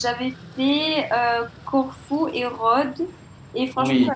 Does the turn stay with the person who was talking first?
Yes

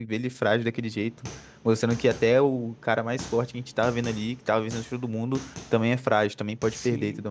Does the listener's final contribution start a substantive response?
Yes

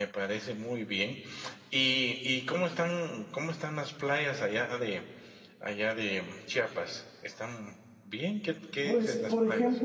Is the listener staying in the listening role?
No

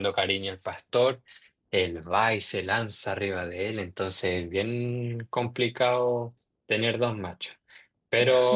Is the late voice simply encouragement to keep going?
Yes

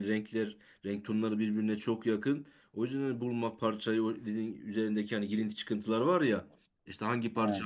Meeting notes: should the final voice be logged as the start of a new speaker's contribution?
No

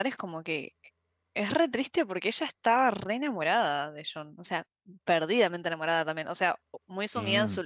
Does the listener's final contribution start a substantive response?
No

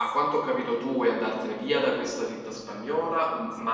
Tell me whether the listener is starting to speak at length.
No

